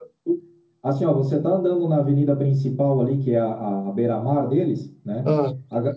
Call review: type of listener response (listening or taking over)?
listening